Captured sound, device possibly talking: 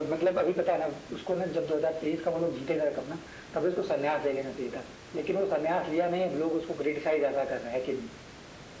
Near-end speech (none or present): none